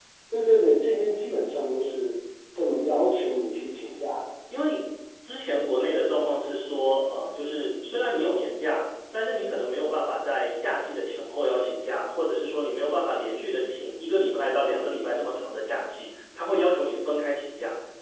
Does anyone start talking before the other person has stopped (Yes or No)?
No